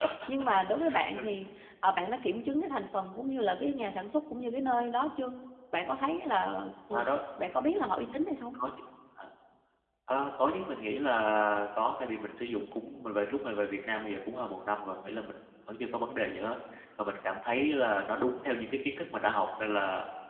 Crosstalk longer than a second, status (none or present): none